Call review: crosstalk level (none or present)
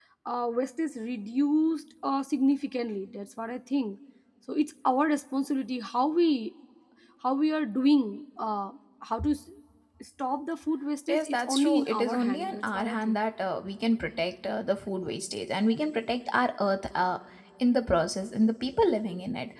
present